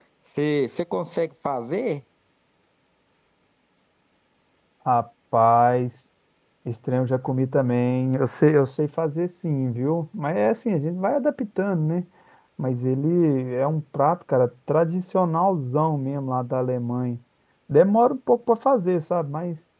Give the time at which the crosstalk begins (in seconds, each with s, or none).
none